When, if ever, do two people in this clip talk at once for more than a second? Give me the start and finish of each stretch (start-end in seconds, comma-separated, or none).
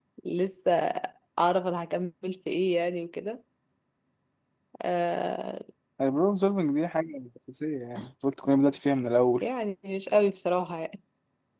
none